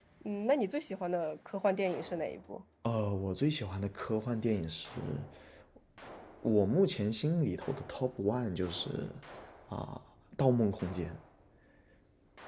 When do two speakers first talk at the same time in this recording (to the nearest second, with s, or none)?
none